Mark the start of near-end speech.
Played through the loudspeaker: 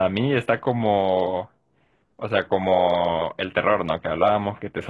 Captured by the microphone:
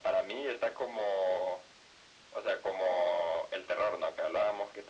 none

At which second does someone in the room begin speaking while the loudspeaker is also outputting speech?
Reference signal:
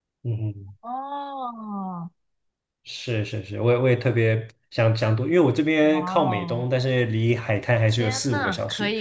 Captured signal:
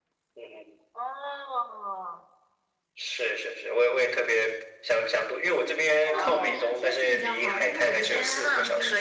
6 s

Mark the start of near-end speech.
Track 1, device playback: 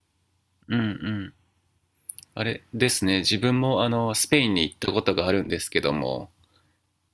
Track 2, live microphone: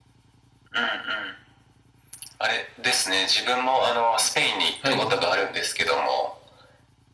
5 s

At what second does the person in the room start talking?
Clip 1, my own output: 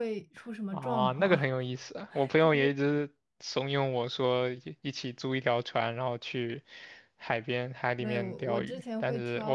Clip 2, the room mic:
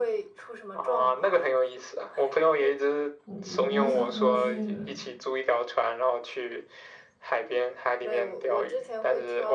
3 s

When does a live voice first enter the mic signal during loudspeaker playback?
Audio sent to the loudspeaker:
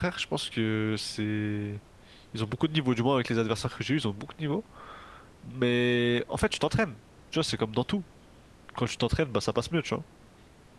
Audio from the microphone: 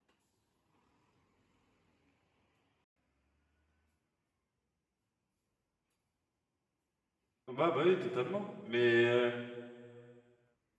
7 s

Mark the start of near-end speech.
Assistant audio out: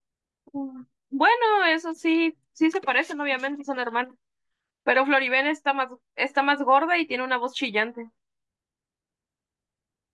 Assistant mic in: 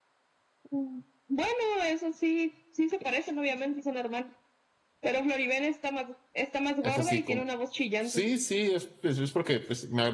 7 s

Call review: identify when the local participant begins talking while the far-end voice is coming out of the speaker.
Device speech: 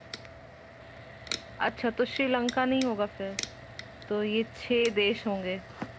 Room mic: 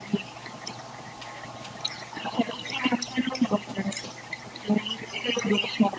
none

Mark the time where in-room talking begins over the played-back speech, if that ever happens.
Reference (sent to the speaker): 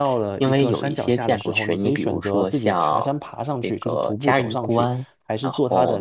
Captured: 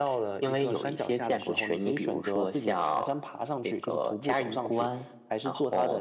none

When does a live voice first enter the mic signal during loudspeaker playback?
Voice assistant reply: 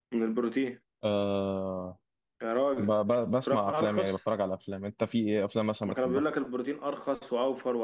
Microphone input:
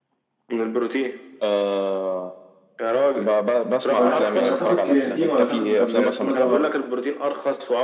4 s

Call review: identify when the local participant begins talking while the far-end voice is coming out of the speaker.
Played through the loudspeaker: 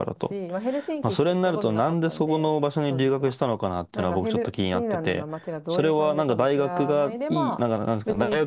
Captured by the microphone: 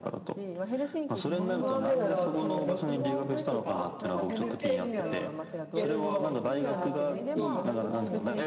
1 s

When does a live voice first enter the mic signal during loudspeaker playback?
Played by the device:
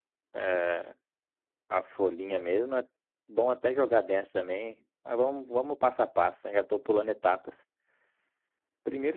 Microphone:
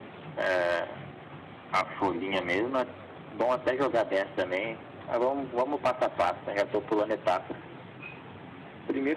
none

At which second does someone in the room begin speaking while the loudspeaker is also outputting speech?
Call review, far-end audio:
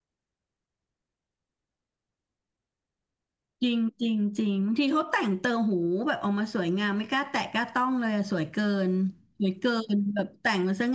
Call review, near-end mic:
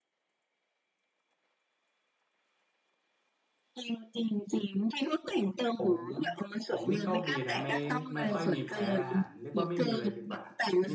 6 s

